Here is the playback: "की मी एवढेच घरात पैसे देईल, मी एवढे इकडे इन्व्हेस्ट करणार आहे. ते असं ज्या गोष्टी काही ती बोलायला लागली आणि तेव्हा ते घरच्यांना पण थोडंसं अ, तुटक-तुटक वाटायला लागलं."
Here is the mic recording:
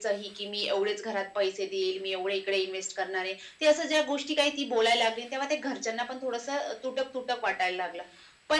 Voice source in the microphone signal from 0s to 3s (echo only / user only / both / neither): echo only